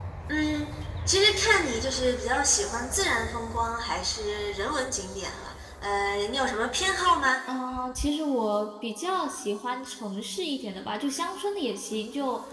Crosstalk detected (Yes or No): No